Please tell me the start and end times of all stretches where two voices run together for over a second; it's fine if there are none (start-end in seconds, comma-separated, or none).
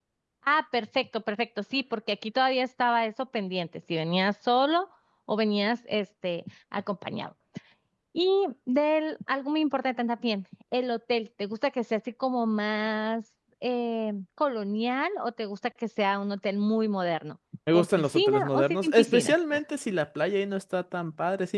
17.7-19.4